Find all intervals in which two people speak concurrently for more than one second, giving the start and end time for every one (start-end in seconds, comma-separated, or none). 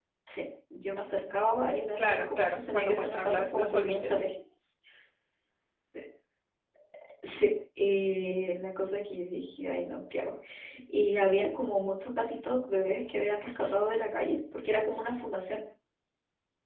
2.0-4.3